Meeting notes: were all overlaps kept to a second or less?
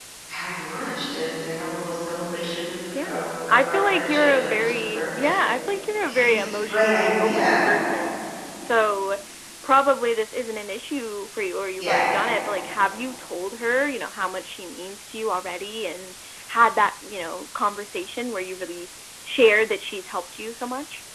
No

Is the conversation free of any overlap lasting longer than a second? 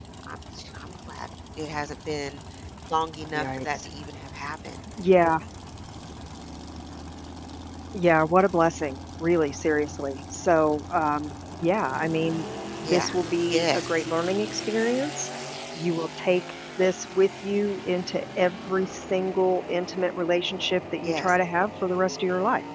Yes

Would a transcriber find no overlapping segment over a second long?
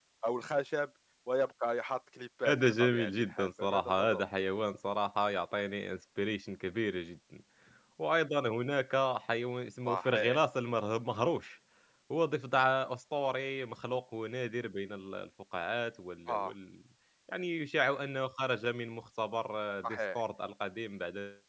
No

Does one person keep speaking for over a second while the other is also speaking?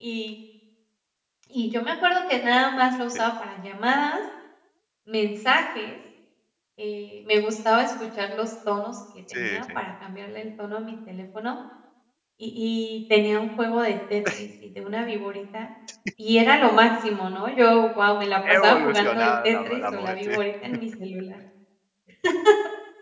Yes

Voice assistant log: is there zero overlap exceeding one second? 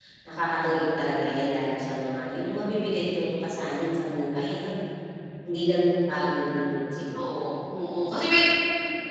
Yes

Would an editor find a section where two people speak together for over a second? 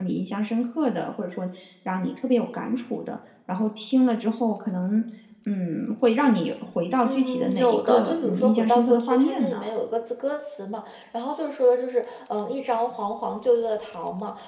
Yes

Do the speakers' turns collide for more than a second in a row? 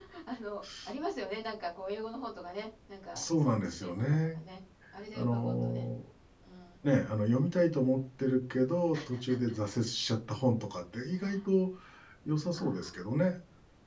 Yes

